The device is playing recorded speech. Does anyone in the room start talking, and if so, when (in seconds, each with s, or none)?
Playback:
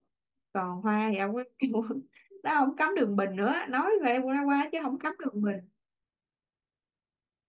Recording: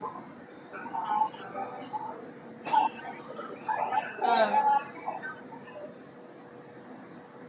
4.2 s